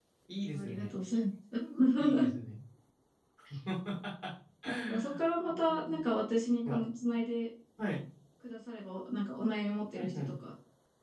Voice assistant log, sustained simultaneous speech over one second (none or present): present